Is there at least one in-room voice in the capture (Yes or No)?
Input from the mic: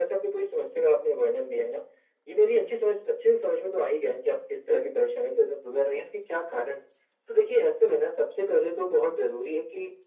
No